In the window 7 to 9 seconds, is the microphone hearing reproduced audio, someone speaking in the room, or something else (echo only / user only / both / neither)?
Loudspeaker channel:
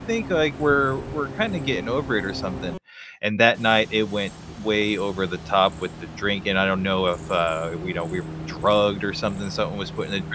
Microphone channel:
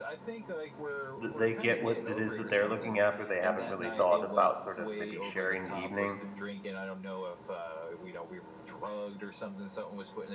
echo only